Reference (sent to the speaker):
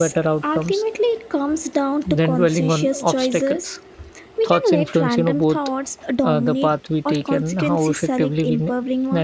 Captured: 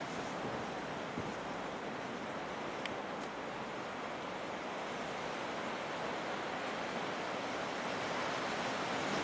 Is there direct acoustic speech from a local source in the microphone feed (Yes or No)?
No